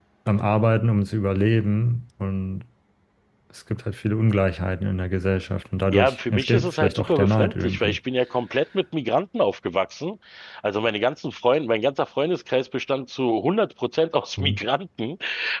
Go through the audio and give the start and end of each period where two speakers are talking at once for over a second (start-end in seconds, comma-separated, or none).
5.9-8.0